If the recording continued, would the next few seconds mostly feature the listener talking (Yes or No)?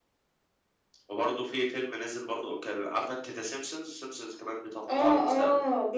Yes